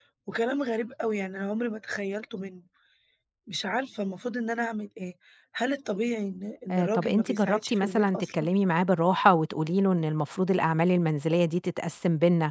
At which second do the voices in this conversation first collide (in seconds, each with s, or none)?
6.7 s